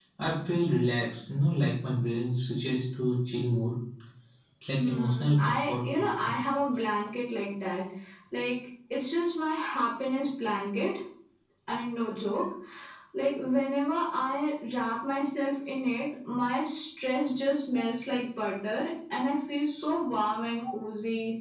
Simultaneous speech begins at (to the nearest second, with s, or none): 5 s